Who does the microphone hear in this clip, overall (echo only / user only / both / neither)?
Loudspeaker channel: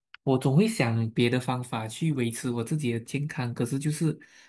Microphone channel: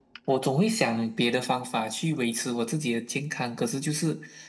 echo only